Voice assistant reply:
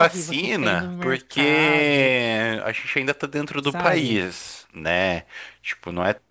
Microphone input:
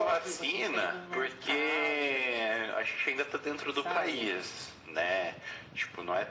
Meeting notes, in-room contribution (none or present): none